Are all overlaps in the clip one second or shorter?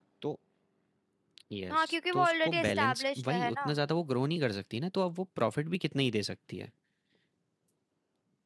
No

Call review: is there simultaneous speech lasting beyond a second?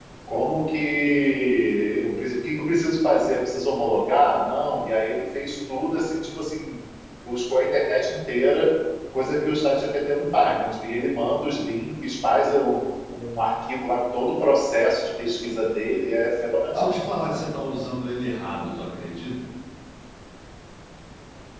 No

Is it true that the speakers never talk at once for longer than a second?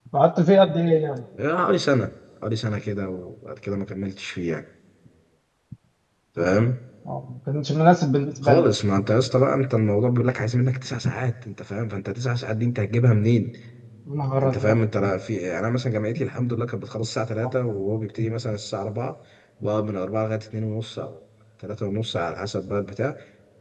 Yes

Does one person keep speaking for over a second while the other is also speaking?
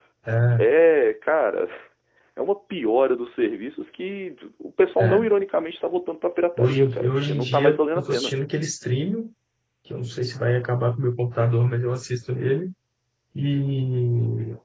Yes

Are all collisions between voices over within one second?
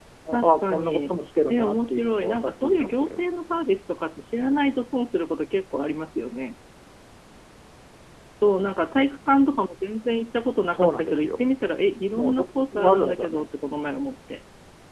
No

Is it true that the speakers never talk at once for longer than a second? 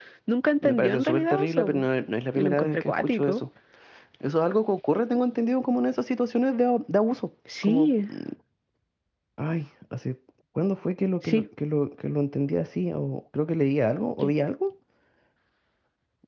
No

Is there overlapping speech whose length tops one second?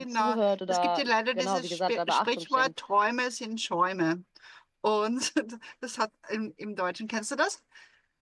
Yes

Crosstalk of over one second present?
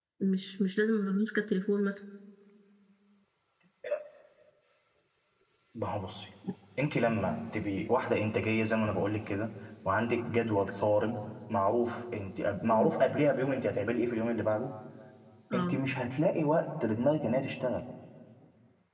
No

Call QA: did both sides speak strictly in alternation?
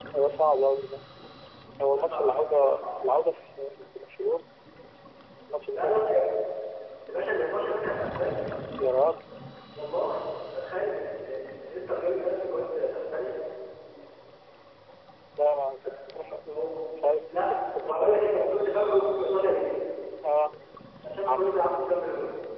No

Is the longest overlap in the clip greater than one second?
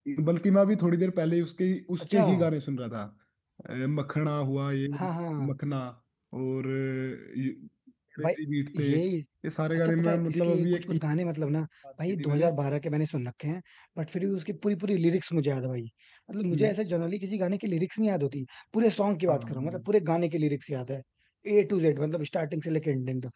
Yes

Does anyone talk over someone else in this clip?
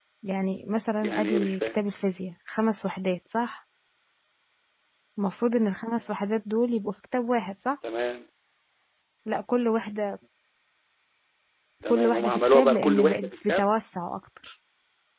Yes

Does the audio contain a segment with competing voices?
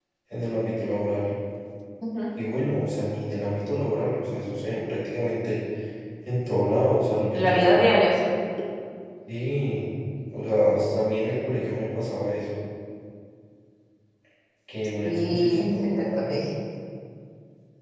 Yes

